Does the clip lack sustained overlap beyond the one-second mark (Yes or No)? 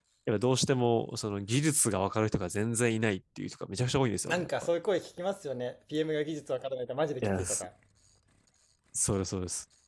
Yes